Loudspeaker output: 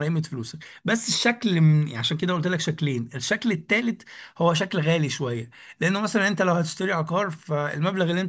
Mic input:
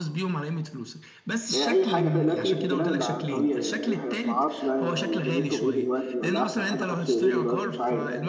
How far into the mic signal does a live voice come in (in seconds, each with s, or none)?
1.5 s